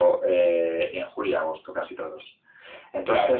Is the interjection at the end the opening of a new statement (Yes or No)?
No